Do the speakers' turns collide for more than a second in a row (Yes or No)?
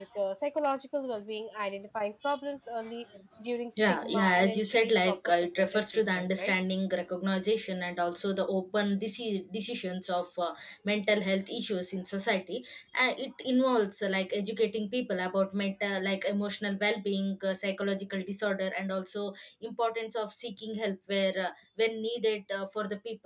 Yes